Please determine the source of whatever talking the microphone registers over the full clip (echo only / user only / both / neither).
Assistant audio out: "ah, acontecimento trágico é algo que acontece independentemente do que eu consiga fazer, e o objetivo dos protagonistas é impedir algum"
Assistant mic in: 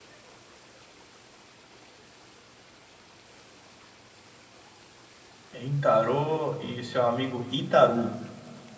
user only